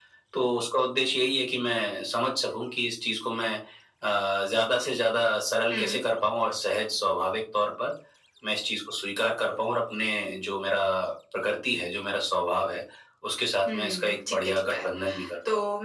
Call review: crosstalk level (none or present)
present